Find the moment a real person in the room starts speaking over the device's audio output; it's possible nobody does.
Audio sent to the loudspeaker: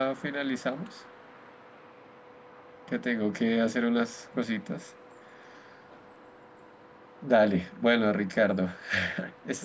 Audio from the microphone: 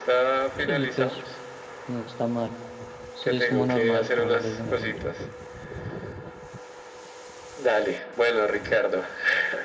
0.6 s

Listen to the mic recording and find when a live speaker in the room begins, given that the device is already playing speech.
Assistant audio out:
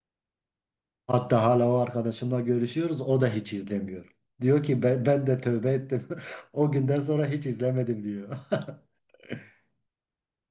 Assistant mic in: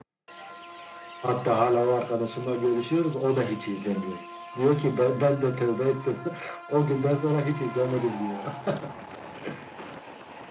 none

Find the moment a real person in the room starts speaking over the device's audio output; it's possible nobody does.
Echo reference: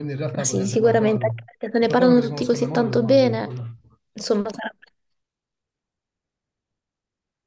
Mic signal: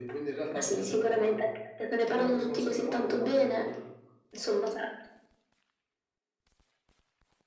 none

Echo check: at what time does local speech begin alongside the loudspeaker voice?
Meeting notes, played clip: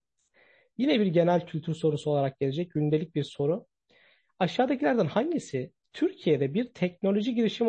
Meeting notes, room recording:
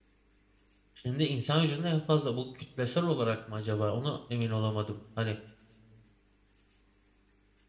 0.9 s

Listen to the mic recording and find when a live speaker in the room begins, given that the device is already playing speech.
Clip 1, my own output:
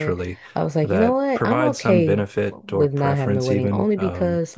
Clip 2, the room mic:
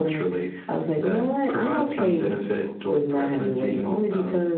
none

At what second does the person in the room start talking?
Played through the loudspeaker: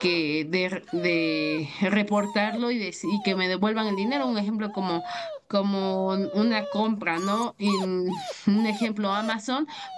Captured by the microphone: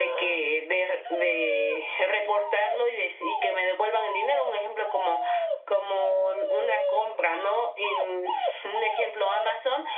none

